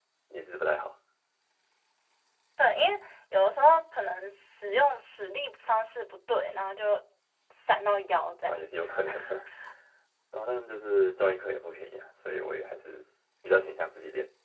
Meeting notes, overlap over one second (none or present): none